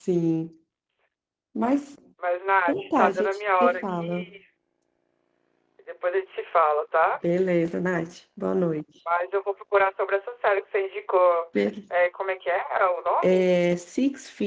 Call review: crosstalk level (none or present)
present